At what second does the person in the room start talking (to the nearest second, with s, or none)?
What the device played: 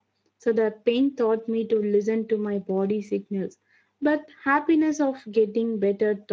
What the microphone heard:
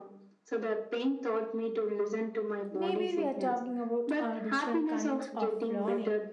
3 s